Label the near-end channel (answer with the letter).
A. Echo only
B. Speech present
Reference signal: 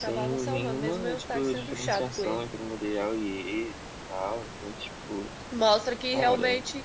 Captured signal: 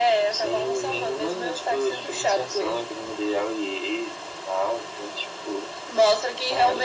A